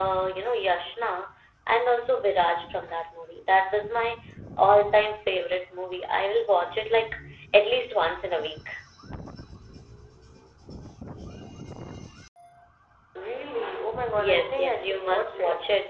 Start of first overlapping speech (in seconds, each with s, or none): 14.2 s